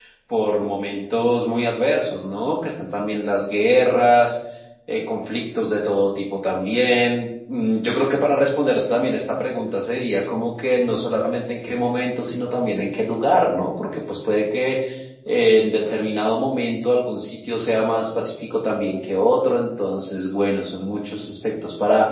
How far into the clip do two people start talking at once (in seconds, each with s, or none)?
none